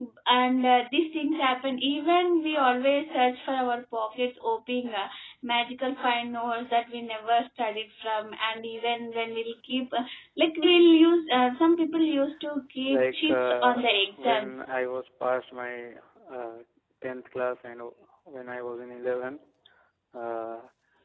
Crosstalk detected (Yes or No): Yes